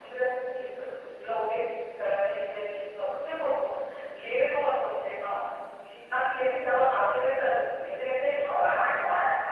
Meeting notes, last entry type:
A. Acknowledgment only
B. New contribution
B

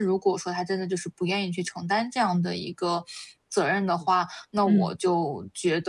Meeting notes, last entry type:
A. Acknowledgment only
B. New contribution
A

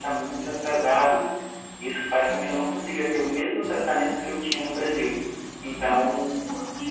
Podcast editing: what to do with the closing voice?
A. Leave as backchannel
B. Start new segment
B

